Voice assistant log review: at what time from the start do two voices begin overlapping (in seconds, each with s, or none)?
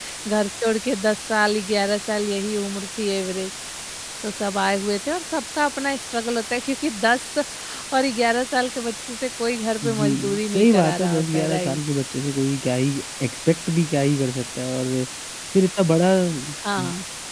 9.8 s